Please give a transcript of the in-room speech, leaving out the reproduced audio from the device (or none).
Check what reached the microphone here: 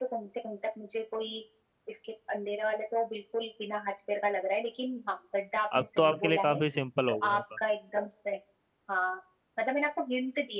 अब तो आपके लिए काफी सिंपल हो गया होगा